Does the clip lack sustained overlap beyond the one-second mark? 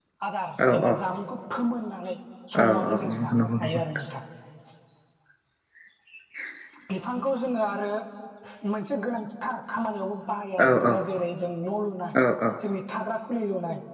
No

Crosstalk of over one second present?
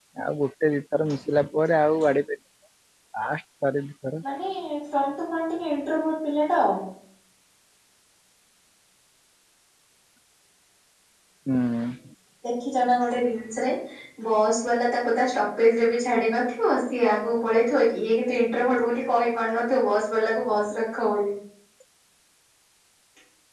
No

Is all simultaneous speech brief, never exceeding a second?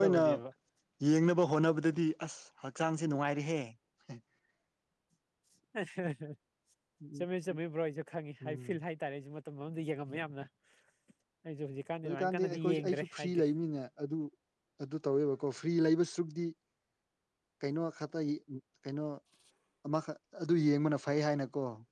No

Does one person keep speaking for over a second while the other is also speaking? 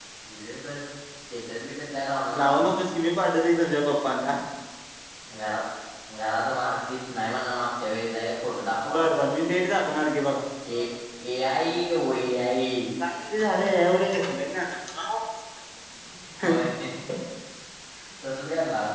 No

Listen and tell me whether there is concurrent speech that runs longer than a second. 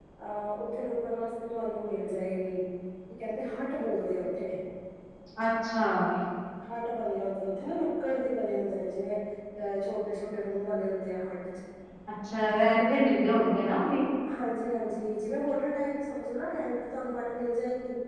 No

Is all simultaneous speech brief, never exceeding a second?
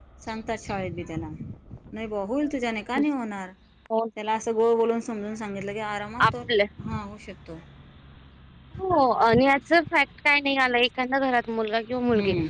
Yes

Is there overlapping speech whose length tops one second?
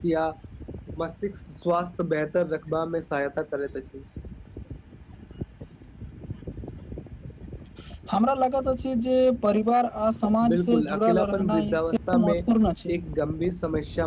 Yes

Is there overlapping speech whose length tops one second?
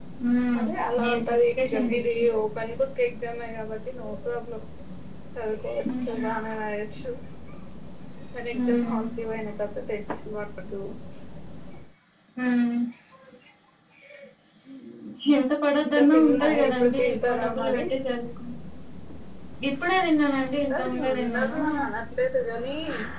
Yes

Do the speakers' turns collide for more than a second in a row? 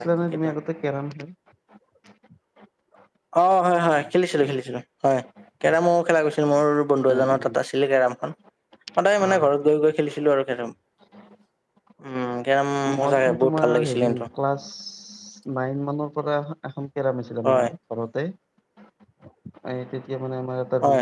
Yes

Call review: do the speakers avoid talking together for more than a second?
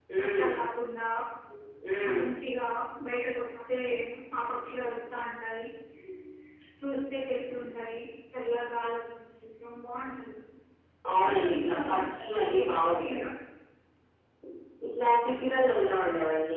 No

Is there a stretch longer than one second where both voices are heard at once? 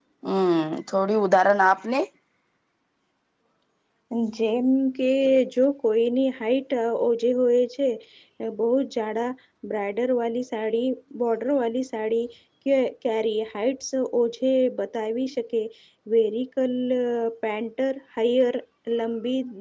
No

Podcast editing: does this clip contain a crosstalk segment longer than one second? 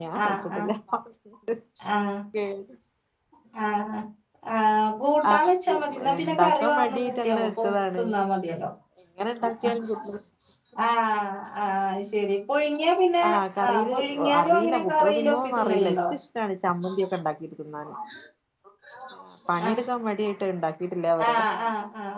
Yes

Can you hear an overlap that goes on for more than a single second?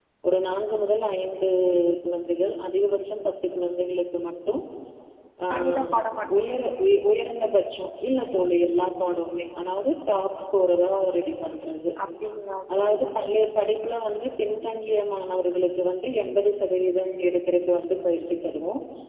No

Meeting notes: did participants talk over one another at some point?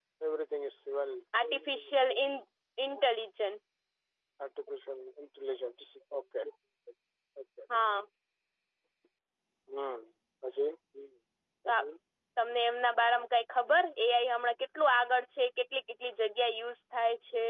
No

